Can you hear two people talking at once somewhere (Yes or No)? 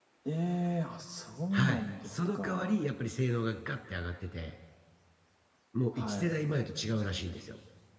Yes